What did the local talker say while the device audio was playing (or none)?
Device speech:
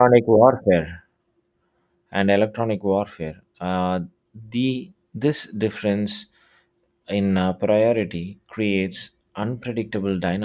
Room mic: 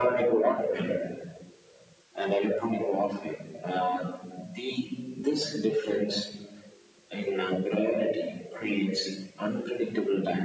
none